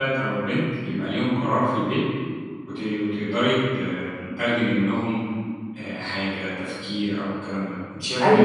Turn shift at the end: No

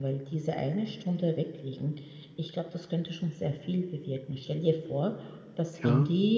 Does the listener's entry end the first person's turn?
No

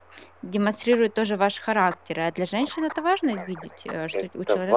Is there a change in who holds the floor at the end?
Yes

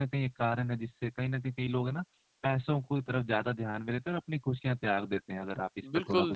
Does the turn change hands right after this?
Yes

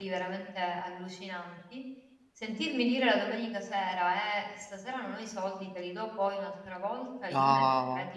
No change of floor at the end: Yes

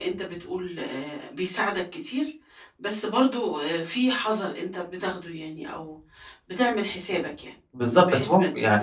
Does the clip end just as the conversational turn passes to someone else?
Yes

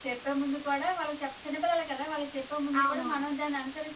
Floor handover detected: No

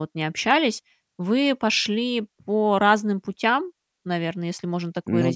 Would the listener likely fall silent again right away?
Yes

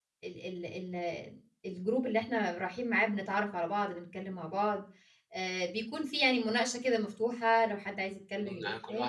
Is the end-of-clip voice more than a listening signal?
Yes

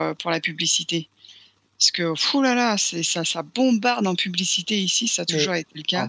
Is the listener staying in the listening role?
No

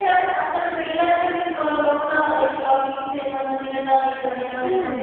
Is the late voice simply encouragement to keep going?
No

